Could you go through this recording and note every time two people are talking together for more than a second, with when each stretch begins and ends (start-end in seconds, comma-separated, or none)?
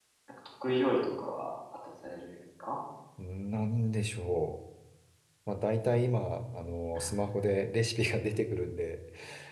none